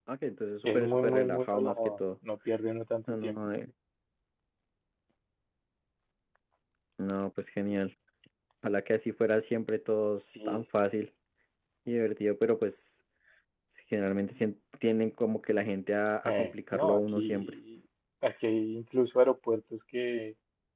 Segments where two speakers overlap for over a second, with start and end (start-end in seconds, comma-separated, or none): 0.6-2.0, 16.2-17.6